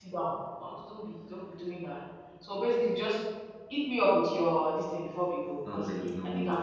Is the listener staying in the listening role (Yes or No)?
No